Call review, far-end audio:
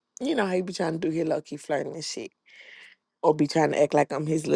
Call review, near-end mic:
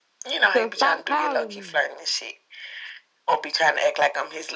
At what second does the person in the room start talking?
0.5 s

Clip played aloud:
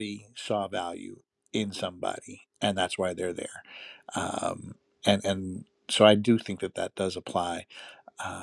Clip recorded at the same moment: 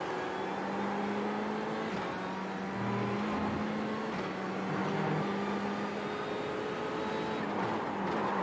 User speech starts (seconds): none

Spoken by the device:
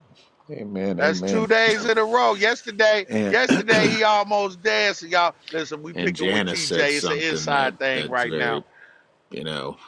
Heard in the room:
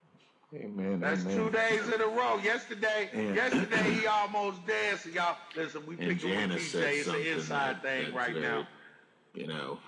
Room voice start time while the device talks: none

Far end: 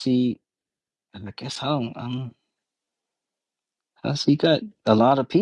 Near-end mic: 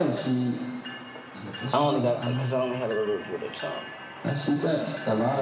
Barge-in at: 1.7 s

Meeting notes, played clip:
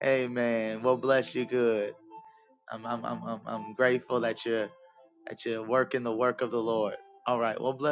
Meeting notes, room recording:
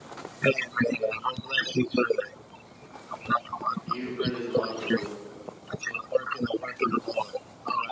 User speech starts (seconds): 3.8 s

